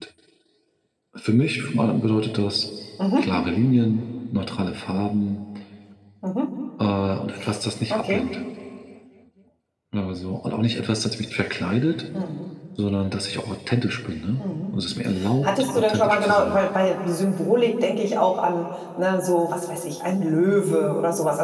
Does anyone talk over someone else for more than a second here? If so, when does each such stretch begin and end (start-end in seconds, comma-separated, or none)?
15.4-16.6